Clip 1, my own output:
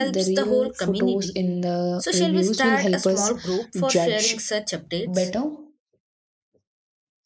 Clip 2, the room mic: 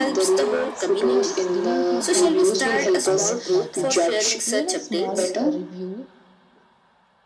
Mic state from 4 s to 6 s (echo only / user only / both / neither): both